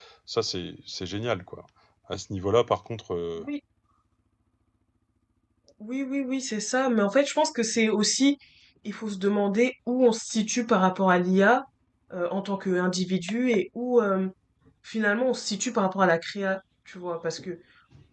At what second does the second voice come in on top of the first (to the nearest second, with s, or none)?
none